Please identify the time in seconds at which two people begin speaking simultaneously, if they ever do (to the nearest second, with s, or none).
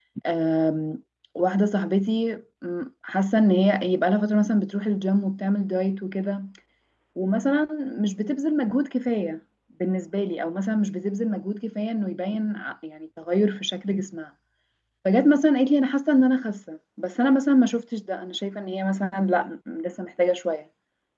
none